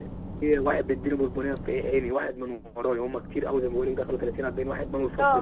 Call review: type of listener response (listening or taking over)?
taking over